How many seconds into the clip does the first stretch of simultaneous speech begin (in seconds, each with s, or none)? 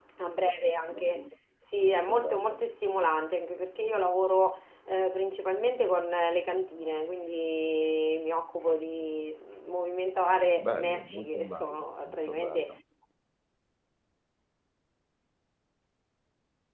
10.6 s